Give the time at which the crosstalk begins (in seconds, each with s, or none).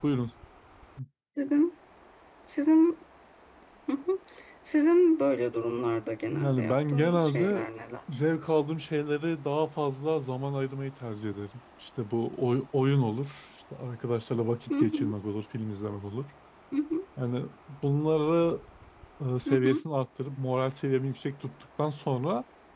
6.3 s